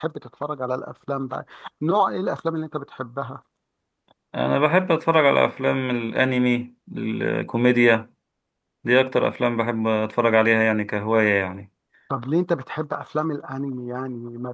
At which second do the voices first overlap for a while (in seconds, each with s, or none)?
none